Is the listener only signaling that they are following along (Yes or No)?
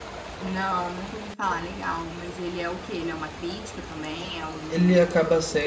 No